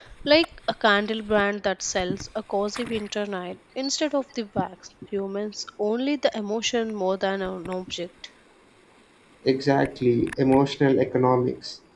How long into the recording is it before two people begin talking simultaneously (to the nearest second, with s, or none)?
none